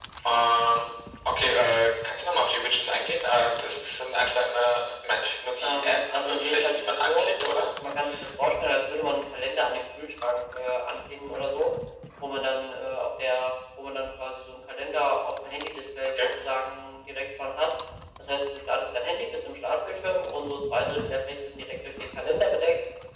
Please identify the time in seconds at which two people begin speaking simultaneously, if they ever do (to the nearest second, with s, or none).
6 s